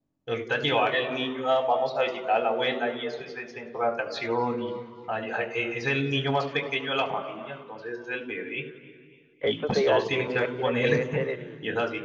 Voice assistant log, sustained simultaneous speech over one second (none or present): present